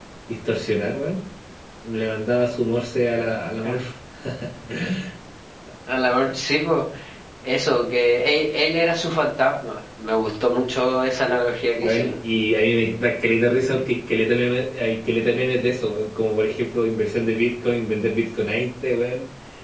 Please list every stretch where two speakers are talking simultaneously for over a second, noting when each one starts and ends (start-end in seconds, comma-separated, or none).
none